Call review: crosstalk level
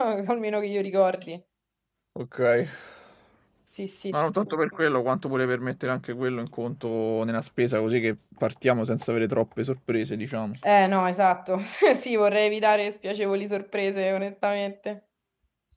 none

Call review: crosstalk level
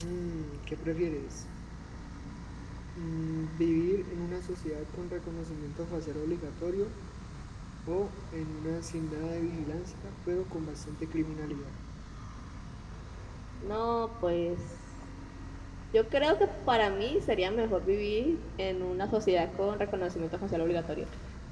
none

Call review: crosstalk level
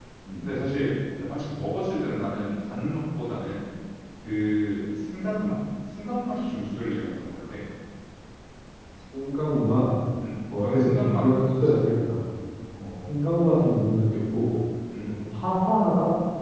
present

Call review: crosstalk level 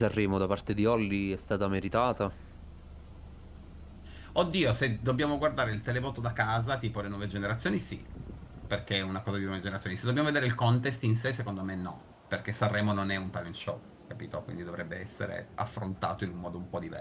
none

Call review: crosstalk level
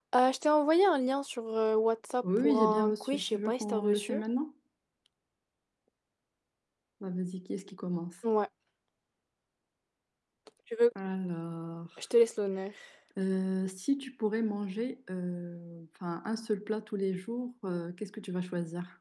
present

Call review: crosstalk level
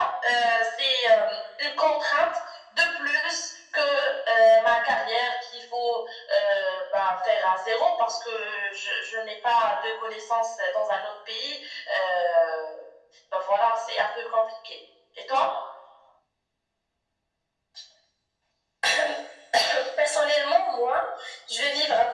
none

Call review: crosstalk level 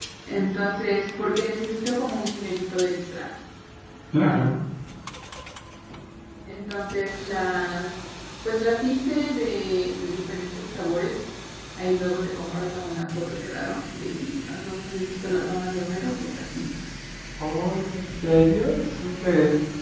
none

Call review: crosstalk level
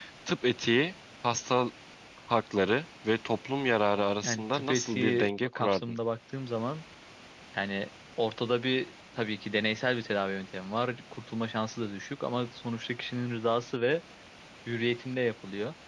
present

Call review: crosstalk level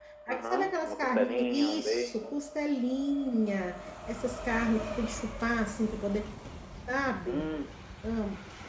present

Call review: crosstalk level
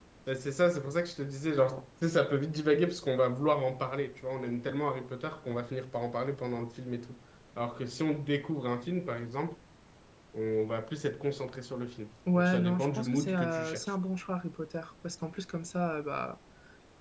present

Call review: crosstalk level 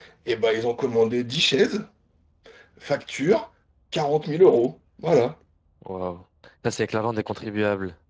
none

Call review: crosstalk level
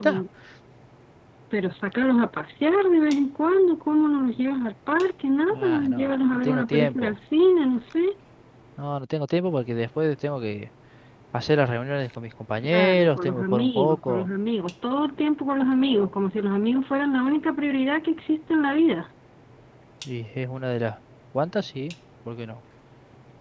present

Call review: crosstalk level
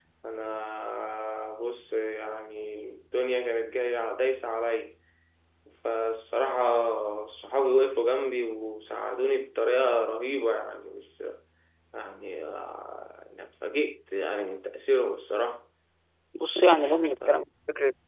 none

